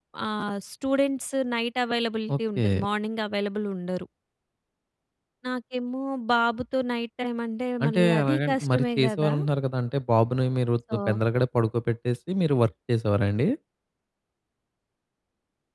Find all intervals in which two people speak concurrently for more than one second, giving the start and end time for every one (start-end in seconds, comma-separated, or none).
7.8-9.3